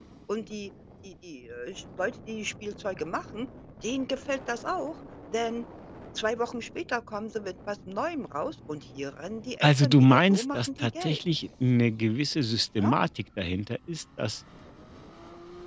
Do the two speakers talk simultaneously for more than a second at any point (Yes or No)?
Yes